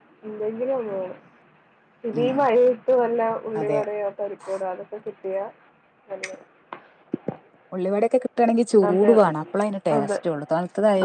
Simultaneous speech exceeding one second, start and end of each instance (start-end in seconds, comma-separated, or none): none